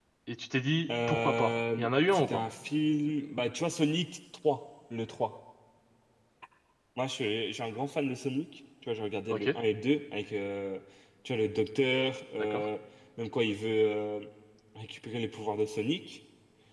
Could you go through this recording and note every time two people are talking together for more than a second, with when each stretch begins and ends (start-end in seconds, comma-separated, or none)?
1.1-2.4